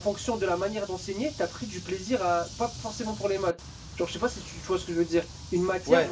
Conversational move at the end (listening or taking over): listening